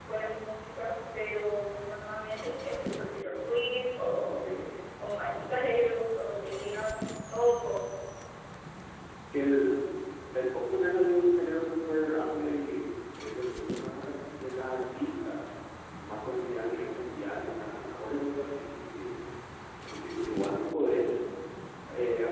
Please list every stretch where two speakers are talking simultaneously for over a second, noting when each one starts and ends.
none

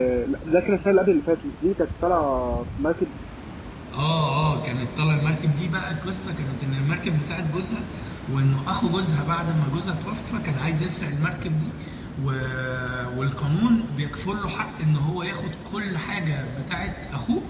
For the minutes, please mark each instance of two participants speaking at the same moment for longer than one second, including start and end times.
none

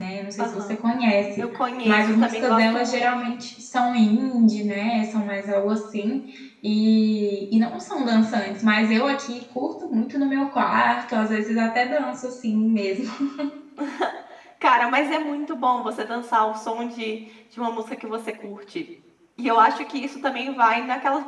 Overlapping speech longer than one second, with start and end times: 1.8-3.1

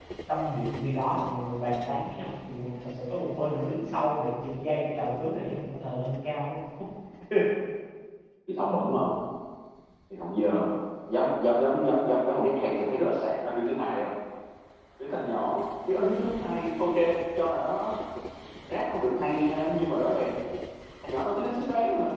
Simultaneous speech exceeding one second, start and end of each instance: none

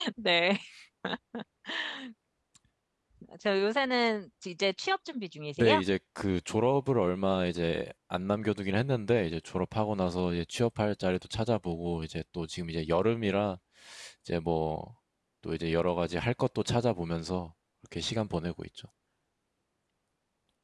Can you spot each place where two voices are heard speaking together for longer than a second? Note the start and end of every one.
none

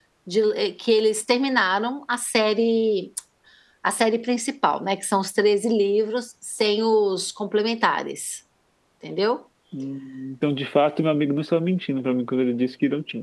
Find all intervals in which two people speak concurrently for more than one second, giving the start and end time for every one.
none

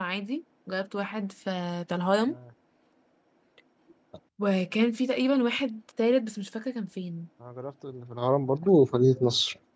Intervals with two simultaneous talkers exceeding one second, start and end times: none

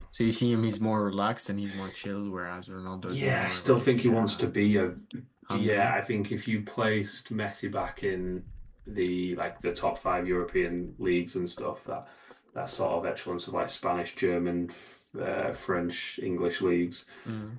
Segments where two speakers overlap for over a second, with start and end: 3.0-4.5

